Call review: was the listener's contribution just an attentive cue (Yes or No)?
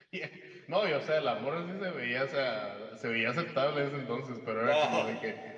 Yes